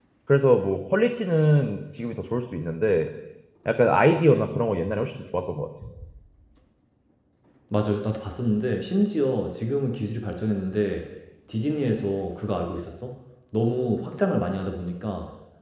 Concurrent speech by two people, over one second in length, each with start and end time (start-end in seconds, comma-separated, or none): none